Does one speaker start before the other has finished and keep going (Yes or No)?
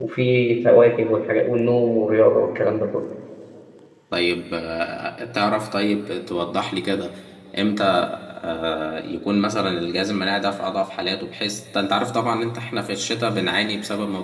No